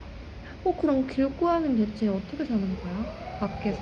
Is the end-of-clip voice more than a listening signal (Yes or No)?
Yes